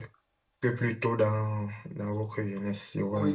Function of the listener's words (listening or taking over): taking over